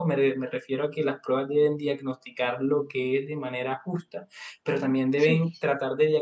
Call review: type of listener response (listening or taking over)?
listening